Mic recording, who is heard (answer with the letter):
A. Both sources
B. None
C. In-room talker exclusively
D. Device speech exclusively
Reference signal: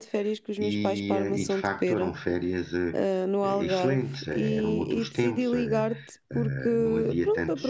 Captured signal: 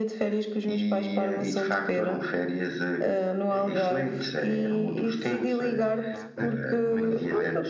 A